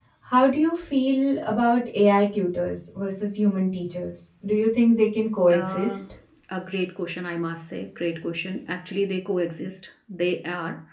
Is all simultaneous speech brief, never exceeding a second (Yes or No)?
Yes